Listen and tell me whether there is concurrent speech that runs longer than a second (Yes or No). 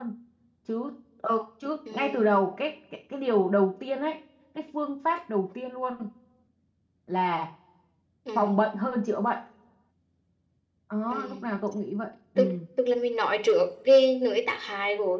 No